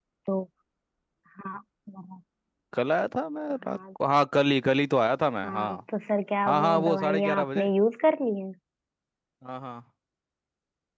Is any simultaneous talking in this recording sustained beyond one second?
Yes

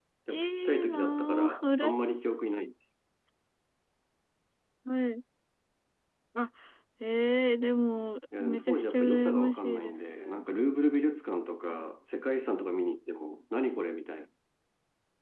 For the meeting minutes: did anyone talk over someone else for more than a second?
Yes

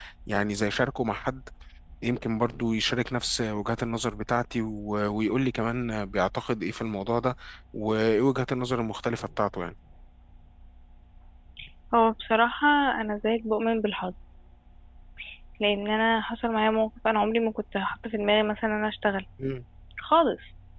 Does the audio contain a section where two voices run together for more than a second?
No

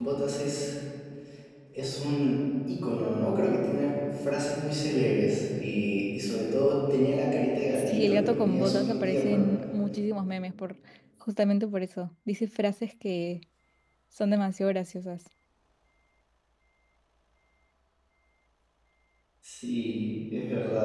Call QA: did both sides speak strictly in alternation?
No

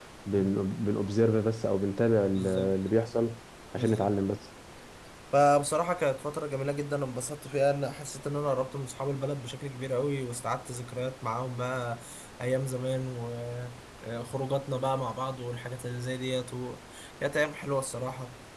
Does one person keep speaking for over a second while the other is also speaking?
No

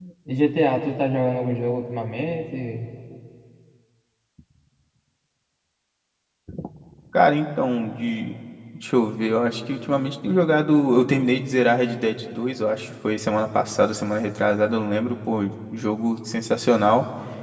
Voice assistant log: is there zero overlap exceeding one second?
Yes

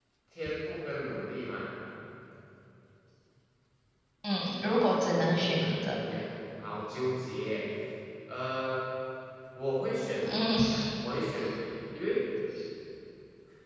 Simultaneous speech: Yes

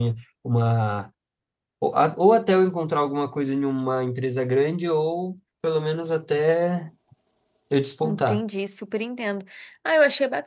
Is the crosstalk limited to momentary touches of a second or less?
Yes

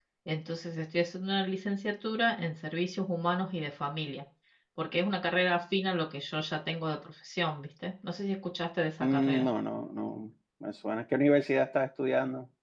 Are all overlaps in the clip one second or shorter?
Yes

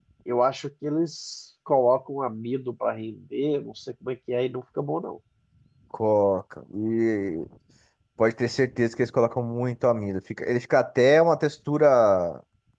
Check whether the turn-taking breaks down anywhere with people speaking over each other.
No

